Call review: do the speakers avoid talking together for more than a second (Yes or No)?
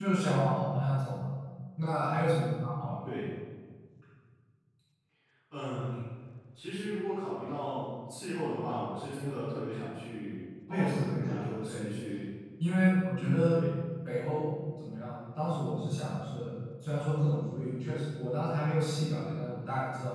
No